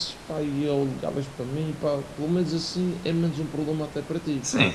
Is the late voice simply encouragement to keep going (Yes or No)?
No